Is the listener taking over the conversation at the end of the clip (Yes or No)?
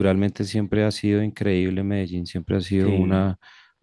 No